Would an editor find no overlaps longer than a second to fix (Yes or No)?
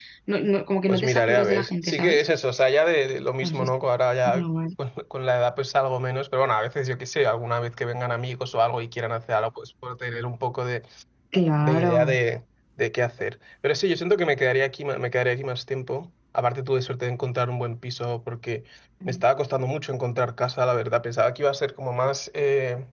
No